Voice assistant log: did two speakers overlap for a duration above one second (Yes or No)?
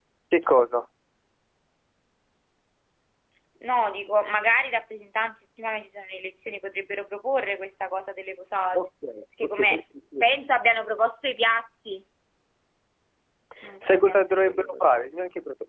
Yes